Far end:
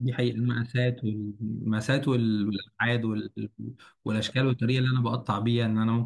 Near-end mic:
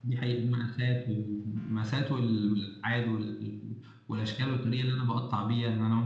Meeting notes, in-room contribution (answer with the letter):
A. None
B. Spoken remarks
A